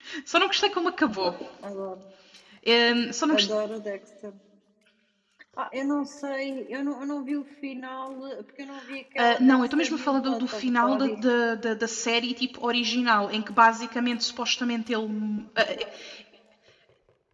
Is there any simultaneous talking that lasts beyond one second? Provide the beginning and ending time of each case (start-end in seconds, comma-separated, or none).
9.2-11.1